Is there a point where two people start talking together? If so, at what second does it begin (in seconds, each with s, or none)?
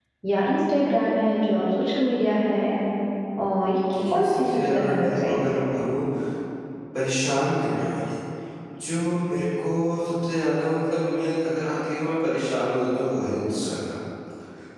3.9 s